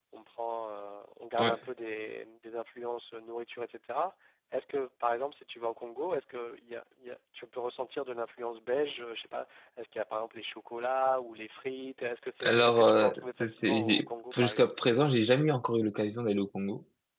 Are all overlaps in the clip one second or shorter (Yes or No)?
No